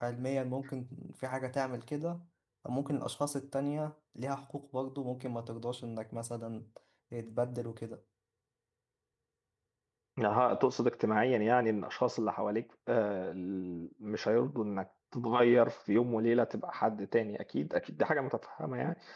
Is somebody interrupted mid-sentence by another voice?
No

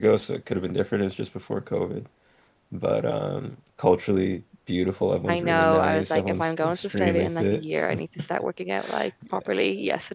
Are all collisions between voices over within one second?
No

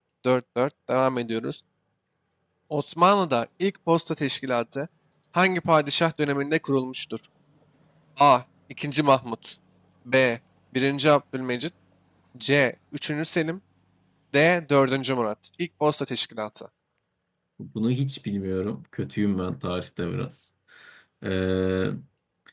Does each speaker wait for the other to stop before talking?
Yes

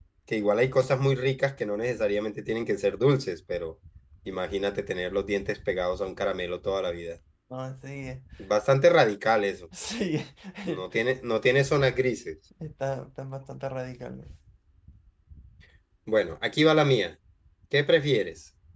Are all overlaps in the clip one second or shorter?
Yes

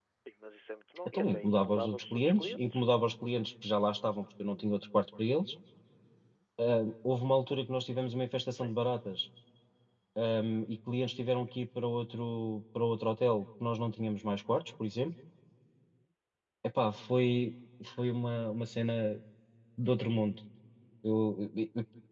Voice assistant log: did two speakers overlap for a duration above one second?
Yes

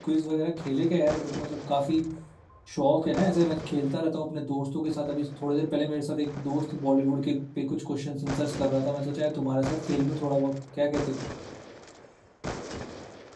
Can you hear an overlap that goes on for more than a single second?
No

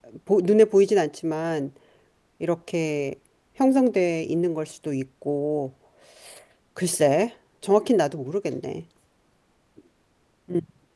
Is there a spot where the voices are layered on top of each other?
No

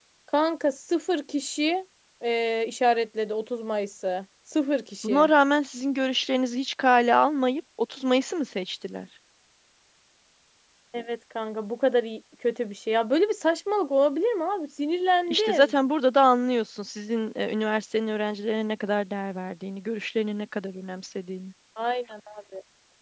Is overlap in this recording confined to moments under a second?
Yes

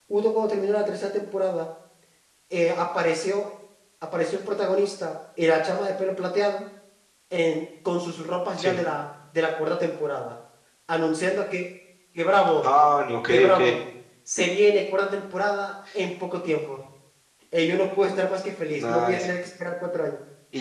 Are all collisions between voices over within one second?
Yes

